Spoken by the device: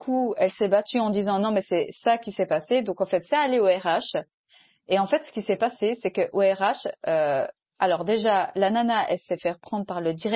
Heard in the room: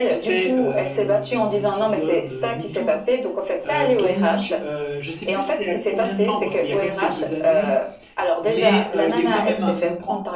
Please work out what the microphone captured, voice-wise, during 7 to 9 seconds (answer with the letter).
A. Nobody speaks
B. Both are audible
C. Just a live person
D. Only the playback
B